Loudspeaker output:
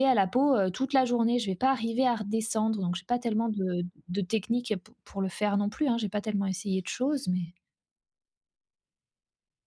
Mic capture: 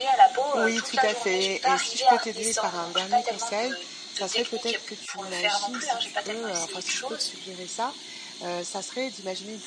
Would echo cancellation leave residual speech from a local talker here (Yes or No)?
Yes